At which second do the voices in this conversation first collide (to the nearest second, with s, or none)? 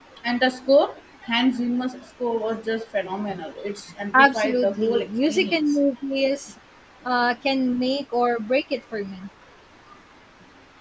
4 s